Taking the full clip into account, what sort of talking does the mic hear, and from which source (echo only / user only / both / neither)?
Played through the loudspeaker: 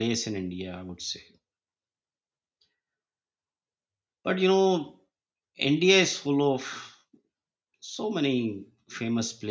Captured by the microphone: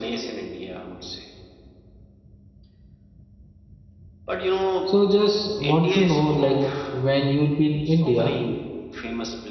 both